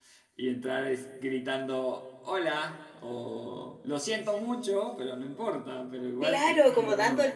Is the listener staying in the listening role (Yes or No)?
No